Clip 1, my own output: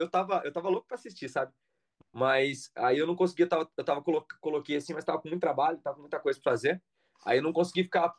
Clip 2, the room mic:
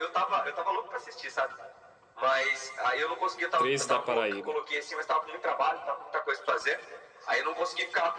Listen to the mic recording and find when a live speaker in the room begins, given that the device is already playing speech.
3.5 s

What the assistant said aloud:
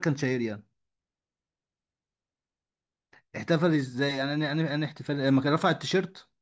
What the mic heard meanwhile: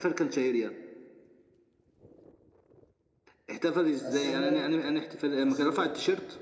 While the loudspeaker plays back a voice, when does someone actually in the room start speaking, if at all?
3.9 s

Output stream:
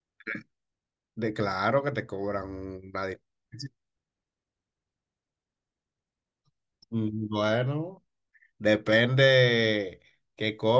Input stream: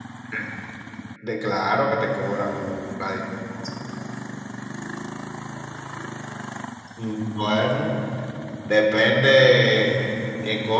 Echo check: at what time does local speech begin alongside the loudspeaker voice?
none

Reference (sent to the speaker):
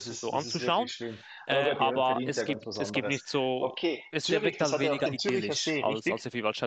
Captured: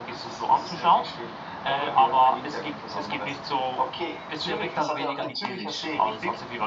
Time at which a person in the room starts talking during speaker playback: none

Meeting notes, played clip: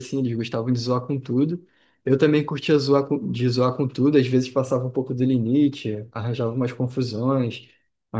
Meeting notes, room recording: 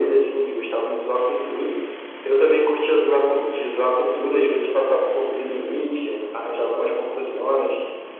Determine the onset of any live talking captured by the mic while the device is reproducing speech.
none

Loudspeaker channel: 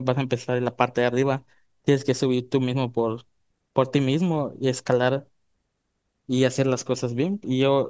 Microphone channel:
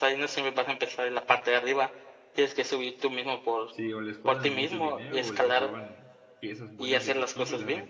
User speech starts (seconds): 3.7 s

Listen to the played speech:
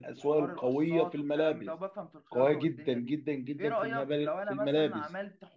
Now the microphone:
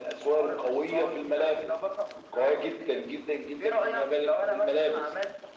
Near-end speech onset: none

